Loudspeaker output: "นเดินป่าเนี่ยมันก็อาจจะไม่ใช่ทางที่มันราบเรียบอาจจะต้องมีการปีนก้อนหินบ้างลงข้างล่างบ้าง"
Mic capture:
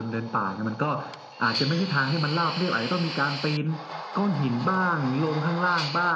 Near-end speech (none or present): none